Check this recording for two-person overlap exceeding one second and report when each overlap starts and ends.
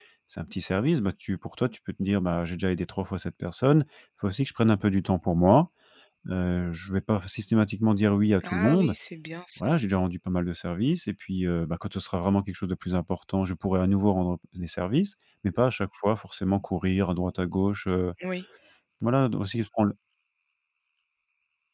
none

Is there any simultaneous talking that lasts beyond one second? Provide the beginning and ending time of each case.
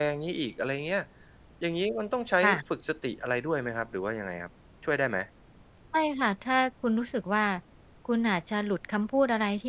none

